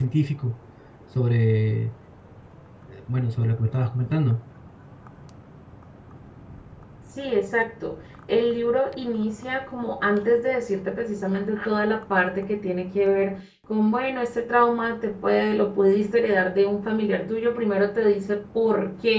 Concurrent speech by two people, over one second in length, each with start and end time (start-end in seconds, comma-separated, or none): none